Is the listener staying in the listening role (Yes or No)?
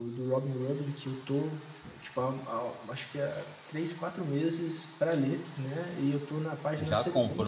No